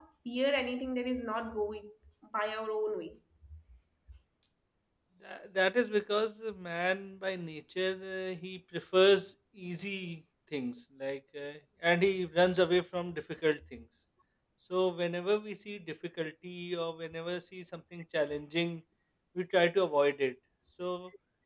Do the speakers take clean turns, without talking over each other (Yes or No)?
Yes